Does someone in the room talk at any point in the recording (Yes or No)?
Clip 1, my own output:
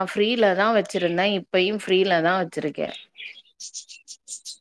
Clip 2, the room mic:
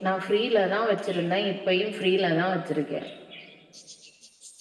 No